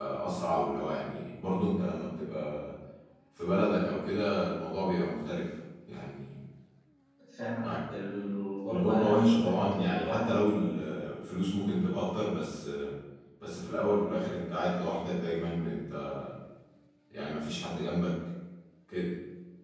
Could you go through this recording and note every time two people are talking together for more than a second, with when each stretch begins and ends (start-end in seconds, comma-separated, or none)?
8.7-10.4